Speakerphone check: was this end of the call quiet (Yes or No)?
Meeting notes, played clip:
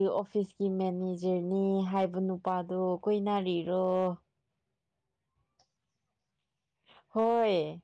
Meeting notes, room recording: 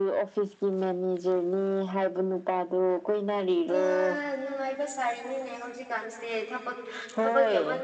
No